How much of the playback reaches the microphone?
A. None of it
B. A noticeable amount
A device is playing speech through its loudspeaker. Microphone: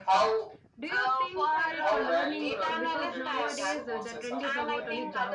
B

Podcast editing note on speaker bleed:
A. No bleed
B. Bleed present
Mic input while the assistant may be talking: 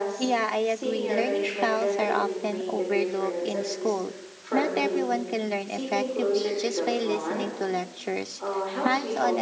B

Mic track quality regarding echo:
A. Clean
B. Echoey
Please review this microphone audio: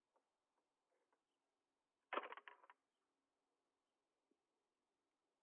A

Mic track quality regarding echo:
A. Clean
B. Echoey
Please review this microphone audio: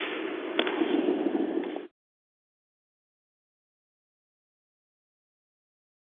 A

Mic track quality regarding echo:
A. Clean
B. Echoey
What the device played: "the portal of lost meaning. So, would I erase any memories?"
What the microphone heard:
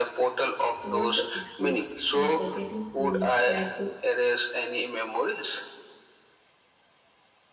B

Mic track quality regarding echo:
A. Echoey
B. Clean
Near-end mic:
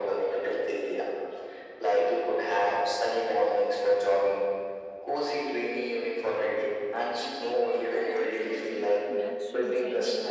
A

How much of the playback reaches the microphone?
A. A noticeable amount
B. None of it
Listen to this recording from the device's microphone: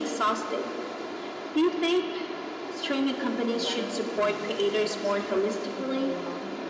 A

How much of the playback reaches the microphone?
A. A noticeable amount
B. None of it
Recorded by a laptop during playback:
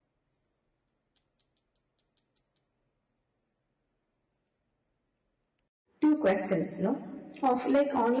B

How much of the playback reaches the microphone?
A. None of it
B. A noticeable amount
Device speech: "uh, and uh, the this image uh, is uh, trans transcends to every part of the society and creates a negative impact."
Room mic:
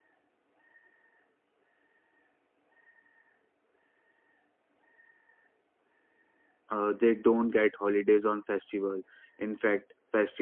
A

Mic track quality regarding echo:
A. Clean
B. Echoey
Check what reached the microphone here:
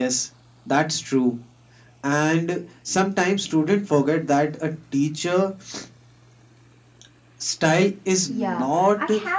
B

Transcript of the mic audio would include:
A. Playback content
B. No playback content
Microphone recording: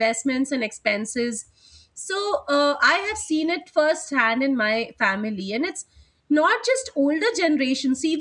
B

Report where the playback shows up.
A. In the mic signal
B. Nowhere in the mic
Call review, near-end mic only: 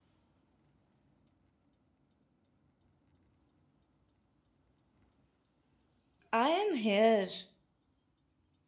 B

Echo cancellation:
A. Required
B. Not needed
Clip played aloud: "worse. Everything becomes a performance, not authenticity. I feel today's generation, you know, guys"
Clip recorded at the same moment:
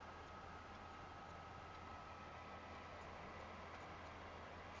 B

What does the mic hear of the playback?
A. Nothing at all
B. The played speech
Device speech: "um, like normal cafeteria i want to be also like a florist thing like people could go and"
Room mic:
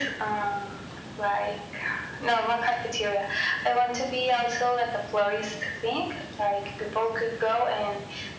B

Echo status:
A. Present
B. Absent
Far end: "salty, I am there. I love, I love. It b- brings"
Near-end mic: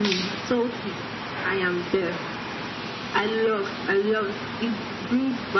A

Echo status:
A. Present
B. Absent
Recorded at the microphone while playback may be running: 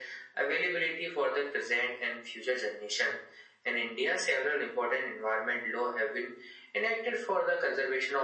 A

